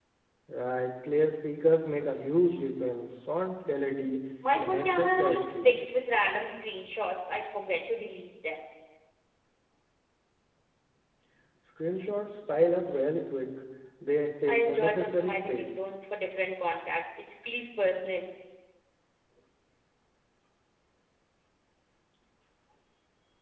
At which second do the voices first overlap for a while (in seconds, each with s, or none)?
4.5 s